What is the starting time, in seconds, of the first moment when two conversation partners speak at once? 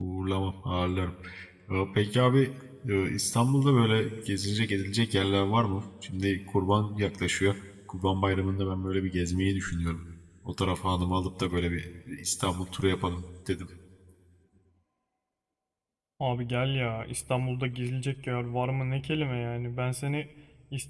none

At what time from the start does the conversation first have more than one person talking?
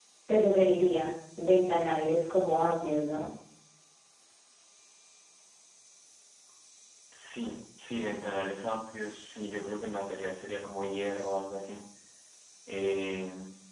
none

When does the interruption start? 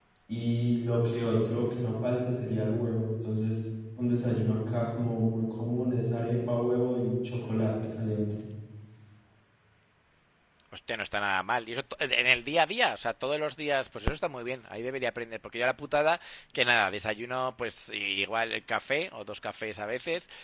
none

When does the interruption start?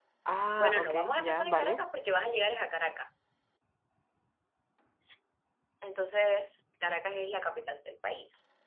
0.6 s

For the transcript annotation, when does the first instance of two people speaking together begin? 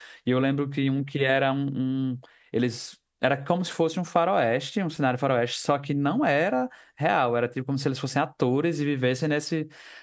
none

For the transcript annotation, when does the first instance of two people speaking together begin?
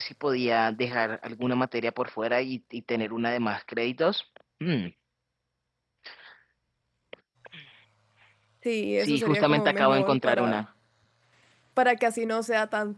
9.0 s

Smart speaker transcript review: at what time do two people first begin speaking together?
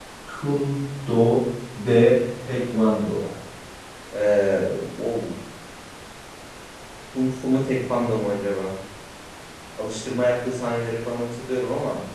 none

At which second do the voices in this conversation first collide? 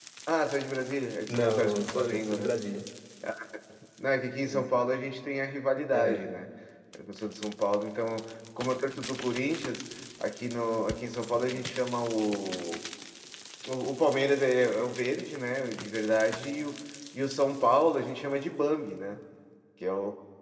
1.3 s

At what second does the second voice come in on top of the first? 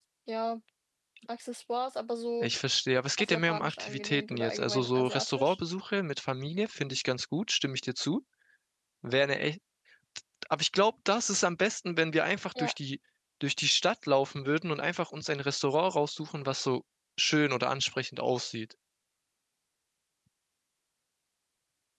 3.2 s

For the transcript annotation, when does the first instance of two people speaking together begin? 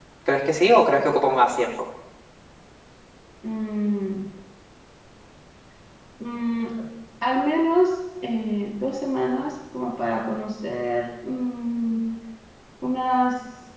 none

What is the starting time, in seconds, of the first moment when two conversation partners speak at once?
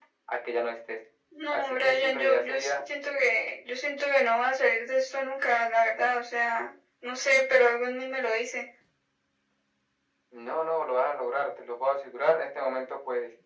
1.5 s

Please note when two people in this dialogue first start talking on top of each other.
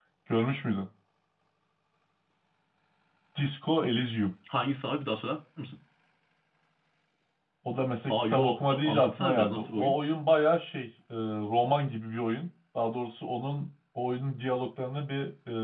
8.1 s

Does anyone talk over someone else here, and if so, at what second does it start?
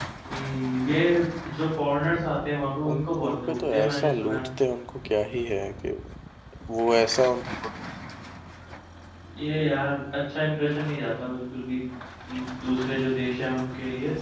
2.9 s

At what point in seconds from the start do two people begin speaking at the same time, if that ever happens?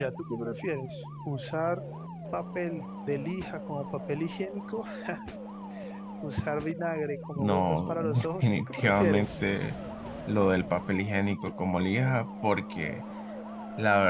7.4 s

